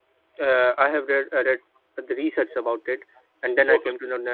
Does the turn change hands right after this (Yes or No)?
No